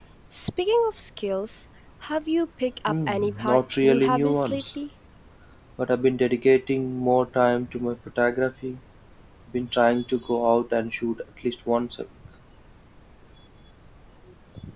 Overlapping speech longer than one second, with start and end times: 2.9-4.7

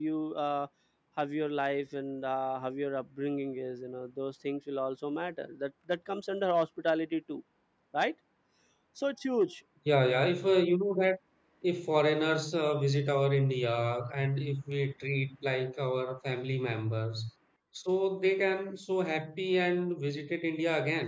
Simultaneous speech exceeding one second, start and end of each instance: none

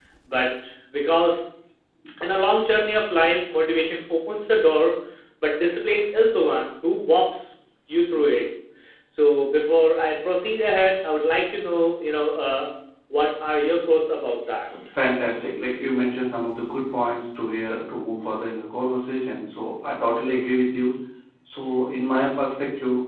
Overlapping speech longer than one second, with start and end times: none

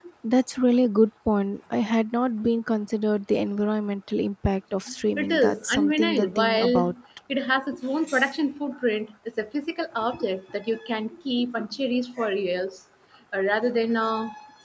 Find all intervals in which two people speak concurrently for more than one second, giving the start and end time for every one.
5.2-6.9

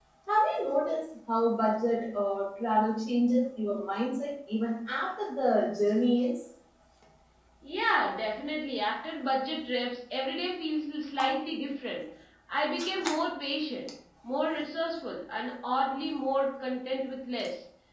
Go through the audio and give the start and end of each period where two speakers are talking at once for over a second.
none

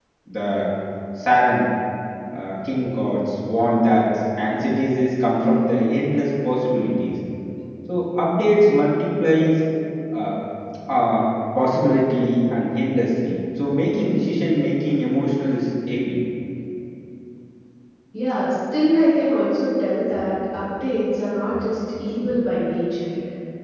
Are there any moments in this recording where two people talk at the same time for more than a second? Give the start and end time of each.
none

